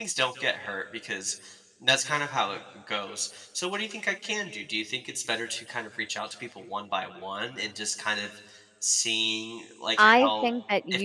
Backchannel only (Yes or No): No